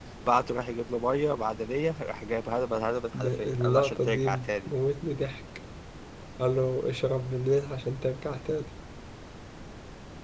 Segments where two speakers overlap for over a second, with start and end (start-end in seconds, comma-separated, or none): 3.2-4.7